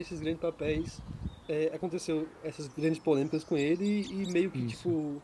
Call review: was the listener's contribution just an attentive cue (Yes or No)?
Yes